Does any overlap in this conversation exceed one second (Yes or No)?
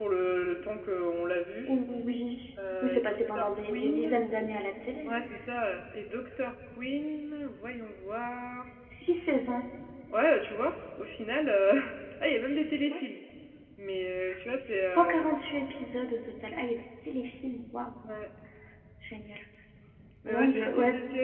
Yes